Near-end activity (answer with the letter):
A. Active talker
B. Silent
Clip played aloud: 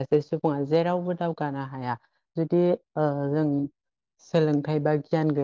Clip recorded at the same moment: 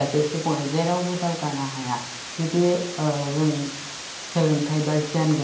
B